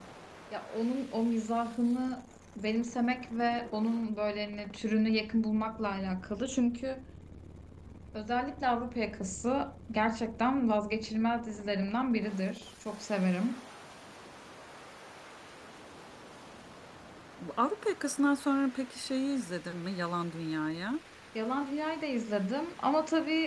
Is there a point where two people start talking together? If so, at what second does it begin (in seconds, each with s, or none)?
none